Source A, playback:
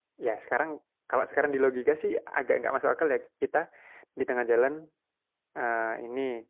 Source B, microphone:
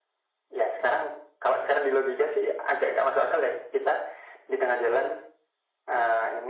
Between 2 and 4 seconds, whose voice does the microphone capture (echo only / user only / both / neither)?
echo only